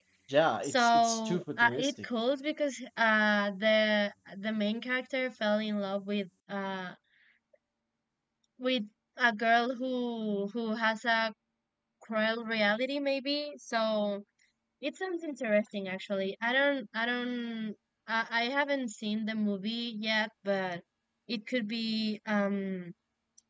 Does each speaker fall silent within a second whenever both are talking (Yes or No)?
No